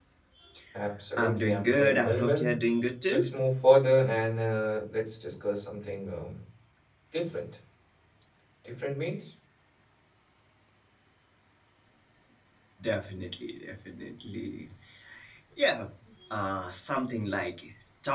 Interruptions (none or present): present